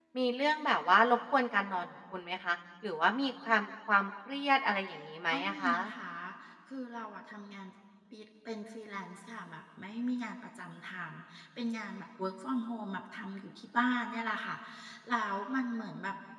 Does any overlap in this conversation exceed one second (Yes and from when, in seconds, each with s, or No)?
No